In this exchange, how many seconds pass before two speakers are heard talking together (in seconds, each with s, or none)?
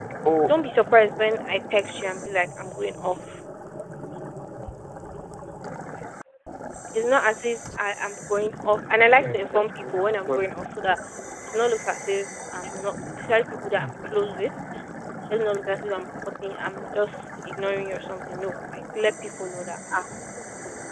9.2 s